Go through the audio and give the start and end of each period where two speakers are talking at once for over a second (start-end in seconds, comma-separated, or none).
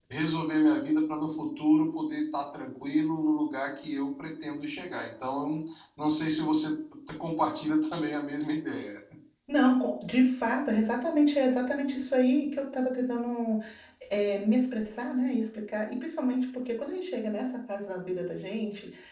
none